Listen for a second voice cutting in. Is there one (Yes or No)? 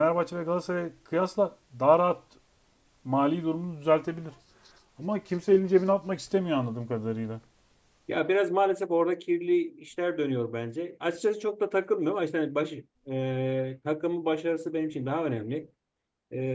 No